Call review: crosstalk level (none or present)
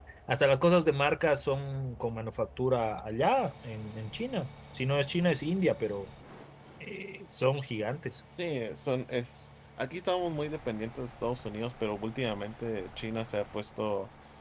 none